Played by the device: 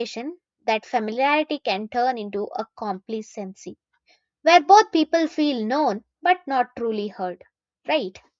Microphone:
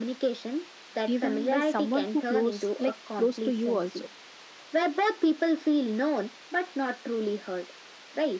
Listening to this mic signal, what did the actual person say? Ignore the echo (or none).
Even by someone who close like close to you also.